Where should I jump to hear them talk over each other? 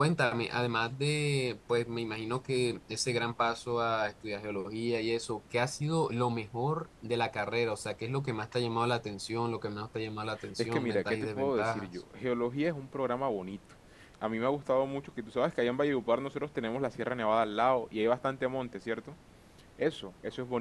10.4 s

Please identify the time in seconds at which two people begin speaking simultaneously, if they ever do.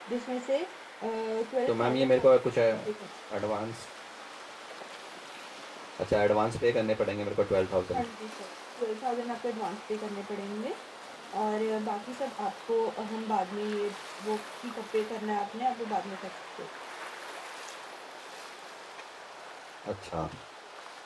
1.7 s

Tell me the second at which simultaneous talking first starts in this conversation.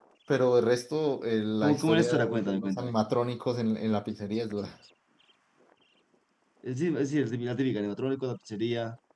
1.6 s

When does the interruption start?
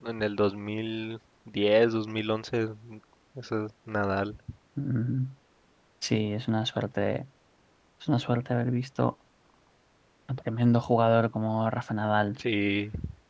none

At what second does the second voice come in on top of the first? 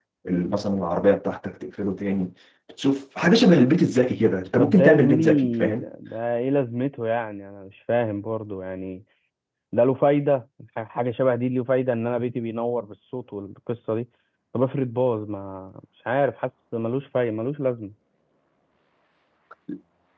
4.6 s

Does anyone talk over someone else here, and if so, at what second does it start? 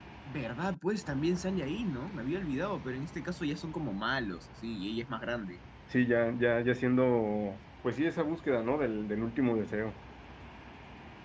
none

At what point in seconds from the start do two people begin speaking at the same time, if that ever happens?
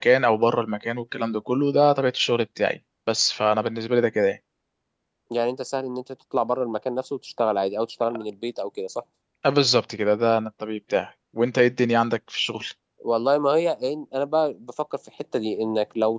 none

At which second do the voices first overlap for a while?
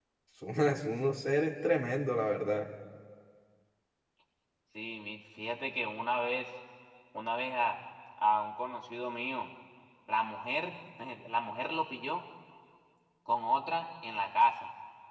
none

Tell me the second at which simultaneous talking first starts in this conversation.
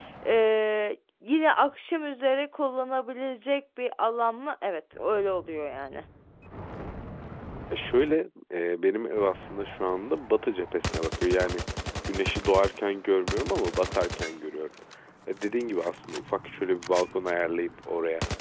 none

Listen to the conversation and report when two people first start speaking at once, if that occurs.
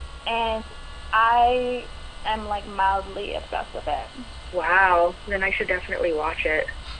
none

